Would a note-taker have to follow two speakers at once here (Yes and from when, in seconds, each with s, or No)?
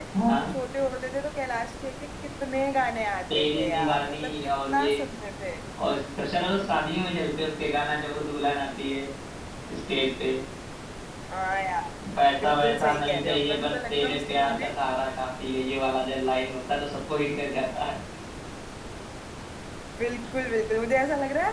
Yes, from 3.3 s